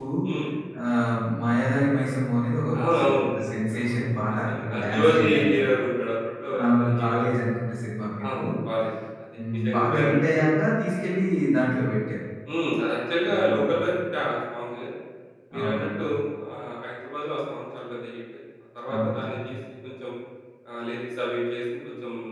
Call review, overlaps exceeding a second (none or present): present